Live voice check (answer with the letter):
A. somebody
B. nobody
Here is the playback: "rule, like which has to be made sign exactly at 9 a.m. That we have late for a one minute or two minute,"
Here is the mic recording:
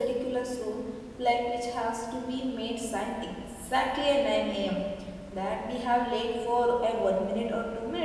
B